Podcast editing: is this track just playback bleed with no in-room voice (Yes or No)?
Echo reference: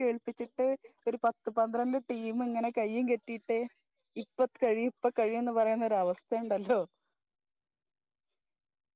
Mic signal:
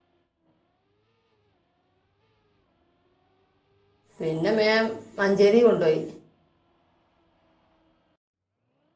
No